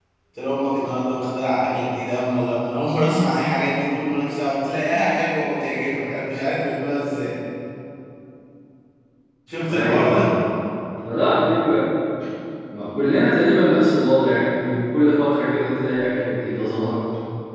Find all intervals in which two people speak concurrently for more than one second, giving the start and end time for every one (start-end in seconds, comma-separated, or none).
none